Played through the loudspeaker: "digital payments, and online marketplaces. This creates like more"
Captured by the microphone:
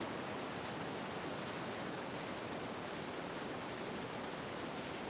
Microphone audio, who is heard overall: neither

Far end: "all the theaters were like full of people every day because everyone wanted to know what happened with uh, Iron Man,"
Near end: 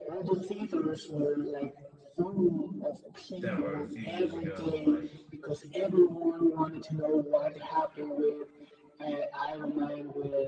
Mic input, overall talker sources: both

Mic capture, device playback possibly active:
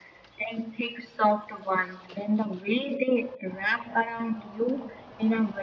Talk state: echo only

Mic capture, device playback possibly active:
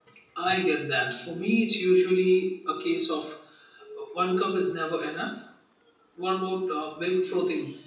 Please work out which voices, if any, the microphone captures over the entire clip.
user only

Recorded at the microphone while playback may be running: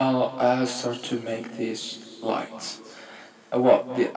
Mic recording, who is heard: echo only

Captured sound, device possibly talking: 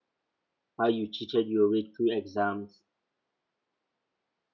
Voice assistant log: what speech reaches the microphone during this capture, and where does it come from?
user only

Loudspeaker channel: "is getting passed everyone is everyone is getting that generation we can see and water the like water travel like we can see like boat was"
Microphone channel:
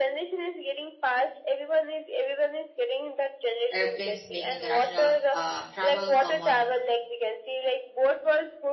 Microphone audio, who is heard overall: both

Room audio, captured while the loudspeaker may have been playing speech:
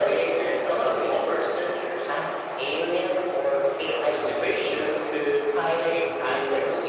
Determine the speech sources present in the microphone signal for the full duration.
both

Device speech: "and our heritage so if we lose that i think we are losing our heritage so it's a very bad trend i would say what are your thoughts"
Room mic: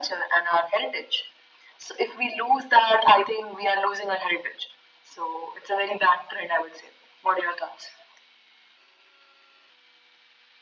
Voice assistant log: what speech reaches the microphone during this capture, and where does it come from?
echo only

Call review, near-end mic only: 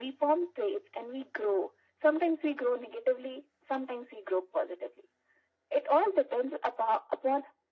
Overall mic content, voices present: echo only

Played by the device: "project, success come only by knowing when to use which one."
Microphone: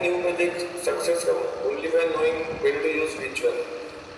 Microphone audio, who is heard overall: echo only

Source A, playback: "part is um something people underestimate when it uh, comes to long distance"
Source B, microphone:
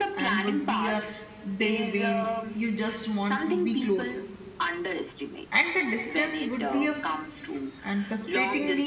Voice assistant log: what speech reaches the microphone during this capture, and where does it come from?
both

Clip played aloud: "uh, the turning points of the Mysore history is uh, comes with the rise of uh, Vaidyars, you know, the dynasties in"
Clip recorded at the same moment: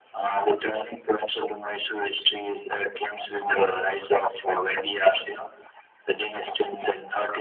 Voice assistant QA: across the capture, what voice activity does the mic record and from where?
echo only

